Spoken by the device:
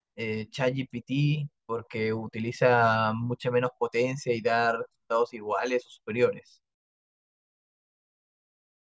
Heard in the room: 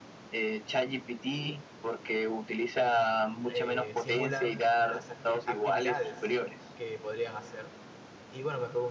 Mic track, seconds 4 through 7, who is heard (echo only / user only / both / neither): both